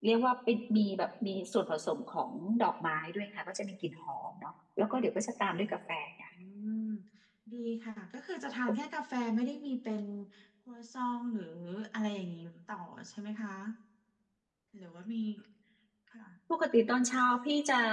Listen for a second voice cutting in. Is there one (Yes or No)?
No